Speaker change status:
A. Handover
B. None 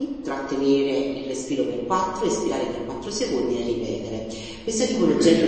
A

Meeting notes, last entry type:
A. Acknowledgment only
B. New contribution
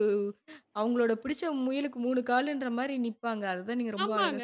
B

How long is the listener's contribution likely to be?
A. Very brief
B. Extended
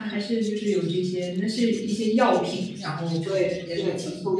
B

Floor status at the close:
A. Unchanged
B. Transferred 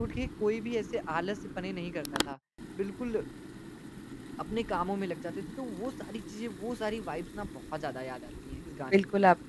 B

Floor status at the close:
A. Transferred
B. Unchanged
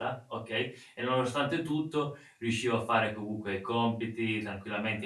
B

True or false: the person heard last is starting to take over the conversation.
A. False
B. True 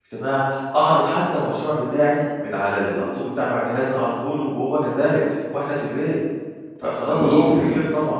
B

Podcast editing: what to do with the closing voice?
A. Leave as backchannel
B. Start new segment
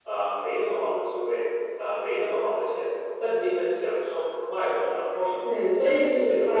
B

